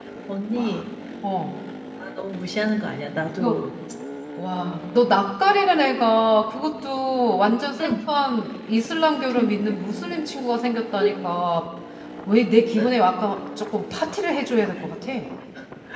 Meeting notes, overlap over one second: none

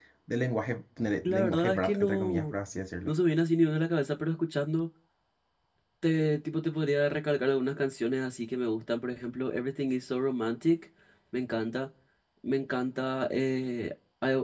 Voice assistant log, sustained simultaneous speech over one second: present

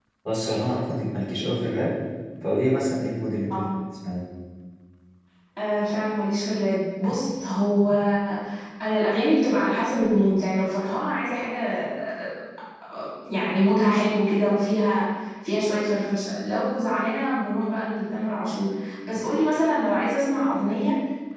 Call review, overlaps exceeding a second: none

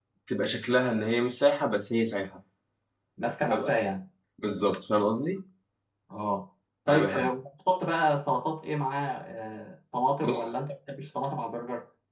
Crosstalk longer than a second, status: none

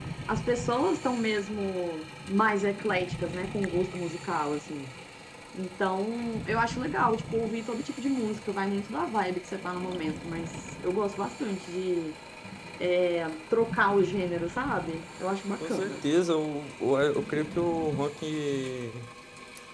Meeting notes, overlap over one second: none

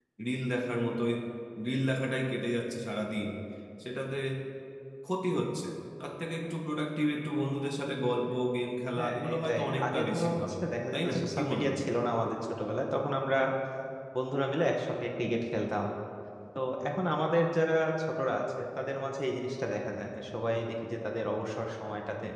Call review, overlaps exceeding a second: present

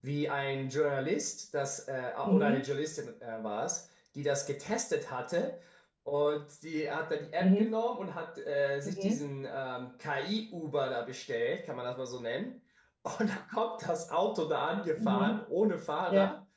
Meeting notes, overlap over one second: none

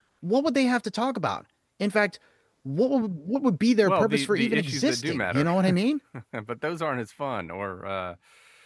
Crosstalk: present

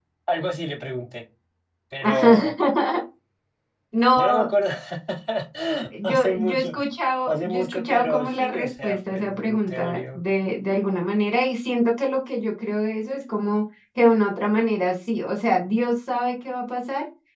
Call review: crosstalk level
present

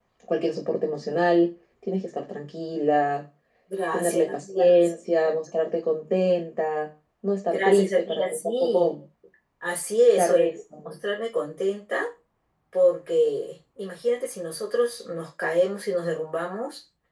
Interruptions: present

